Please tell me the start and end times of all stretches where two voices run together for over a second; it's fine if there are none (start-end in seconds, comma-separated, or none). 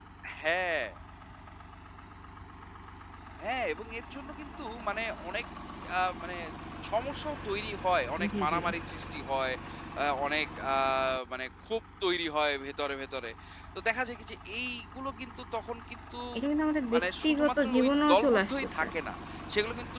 16.9-18.8